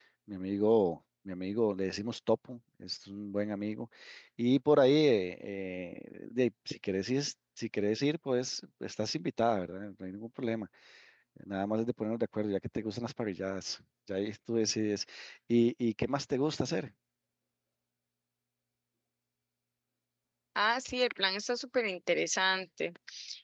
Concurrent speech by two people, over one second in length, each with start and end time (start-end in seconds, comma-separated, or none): none